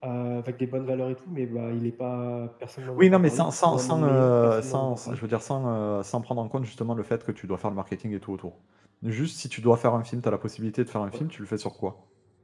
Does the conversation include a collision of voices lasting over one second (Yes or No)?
Yes